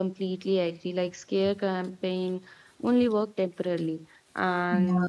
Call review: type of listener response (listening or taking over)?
listening